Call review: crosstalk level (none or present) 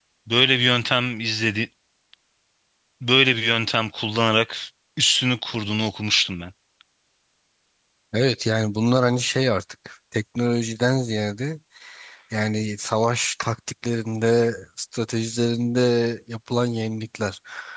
none